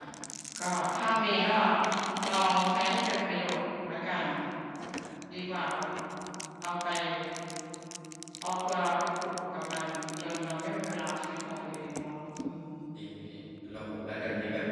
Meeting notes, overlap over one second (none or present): none